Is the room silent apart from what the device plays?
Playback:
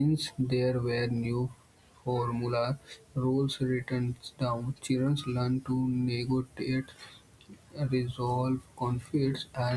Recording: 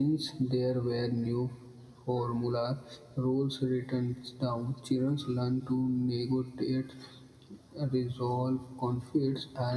Yes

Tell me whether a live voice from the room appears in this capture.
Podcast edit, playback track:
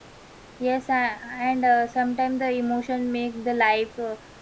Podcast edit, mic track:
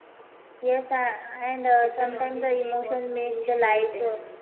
Yes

